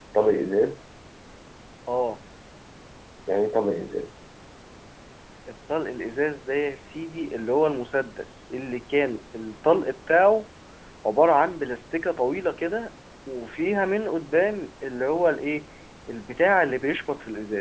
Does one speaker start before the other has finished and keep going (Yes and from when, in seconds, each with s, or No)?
No